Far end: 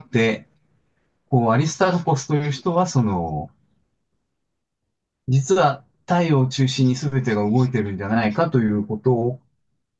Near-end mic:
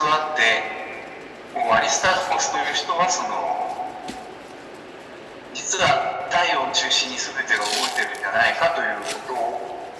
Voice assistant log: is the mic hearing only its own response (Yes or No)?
Yes